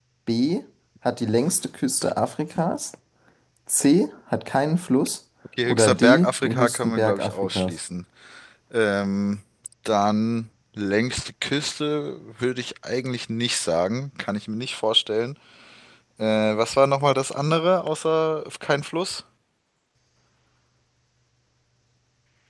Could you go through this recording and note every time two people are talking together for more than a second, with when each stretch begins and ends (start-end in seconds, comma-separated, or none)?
5.7-7.8